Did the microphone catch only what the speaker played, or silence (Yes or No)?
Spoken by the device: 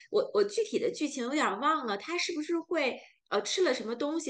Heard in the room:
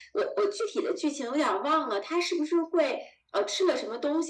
Yes